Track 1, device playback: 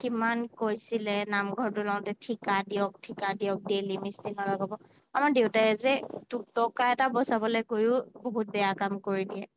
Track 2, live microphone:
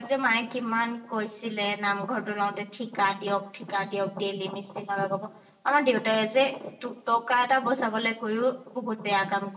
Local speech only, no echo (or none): none